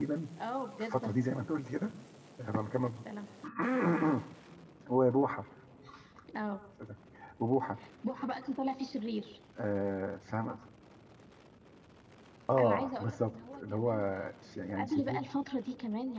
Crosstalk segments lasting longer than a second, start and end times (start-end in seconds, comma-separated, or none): 12.6-13.9